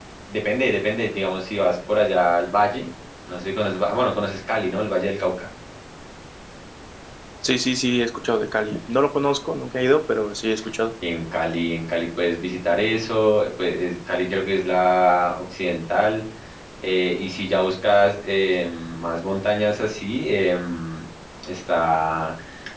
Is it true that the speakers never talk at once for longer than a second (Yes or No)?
Yes